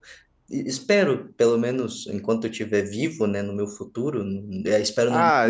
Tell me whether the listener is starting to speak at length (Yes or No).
Yes